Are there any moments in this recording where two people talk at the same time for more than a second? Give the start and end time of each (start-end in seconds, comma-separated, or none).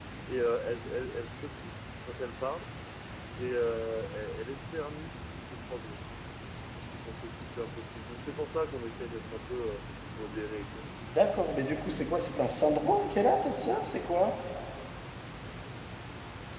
none